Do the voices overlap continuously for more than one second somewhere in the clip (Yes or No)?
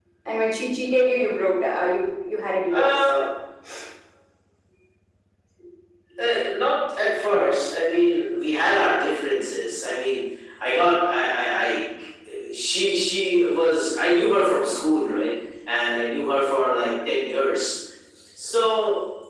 No